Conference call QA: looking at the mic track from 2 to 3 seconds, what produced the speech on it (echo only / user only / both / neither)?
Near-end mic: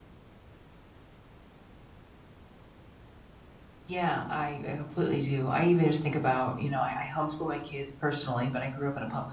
neither